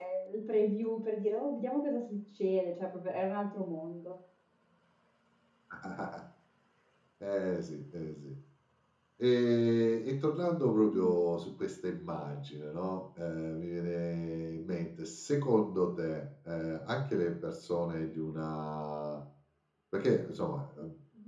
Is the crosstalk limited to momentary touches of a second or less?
Yes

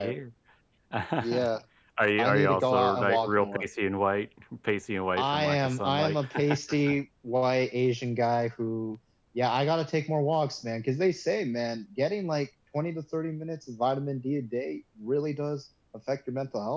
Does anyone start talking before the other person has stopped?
Yes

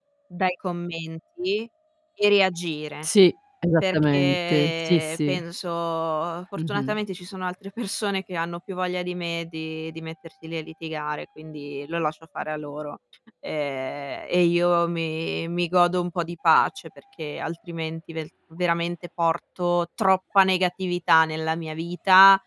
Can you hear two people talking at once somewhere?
Yes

